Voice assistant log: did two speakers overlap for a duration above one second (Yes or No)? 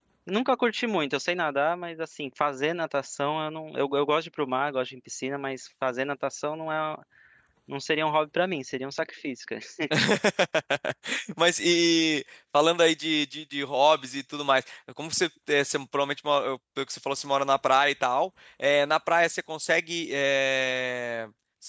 No